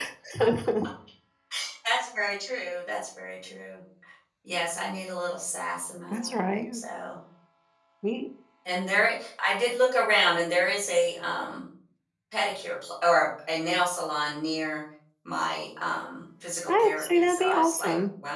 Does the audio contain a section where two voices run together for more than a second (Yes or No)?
Yes